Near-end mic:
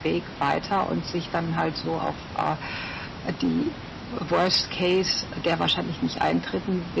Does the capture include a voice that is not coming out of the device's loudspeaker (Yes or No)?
No